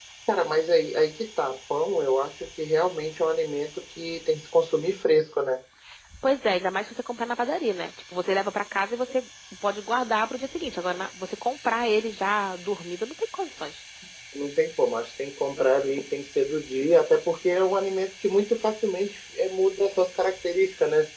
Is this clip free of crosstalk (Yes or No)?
Yes